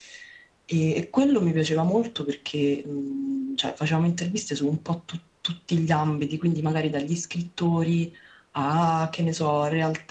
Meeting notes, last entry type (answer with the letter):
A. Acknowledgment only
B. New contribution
A